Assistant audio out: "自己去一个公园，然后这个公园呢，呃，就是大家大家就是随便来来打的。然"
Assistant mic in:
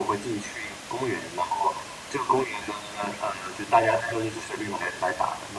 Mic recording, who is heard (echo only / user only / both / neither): echo only